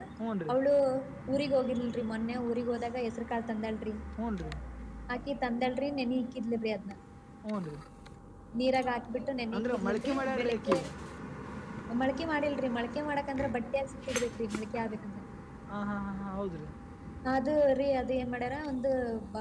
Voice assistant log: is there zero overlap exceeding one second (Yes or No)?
No